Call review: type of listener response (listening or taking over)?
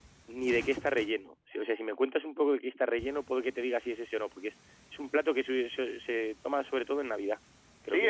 taking over